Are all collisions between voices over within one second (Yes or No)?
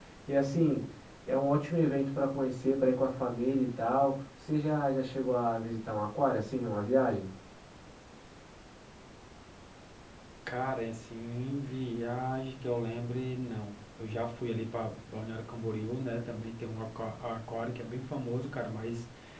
Yes